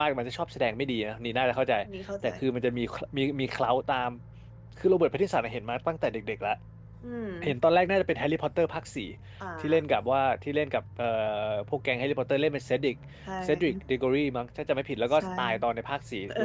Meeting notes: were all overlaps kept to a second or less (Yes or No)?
Yes